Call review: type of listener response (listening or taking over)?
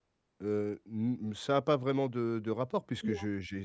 listening